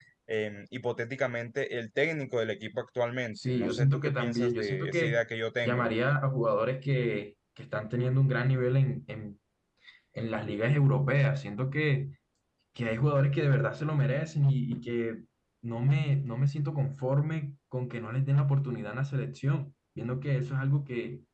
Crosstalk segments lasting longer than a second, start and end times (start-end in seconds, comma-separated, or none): 3.4-5.2